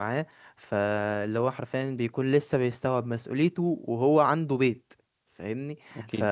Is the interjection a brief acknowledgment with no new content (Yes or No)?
Yes